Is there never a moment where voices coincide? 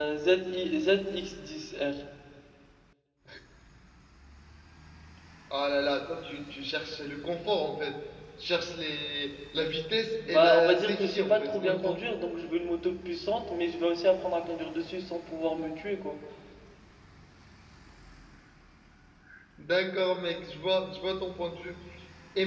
No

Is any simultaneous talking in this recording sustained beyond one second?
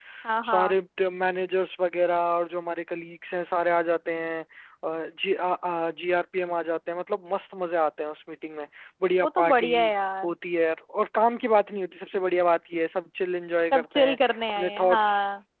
Yes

